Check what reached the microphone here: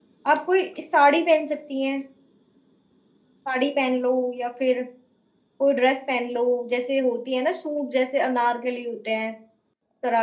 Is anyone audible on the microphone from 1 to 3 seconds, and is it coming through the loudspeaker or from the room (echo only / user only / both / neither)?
user only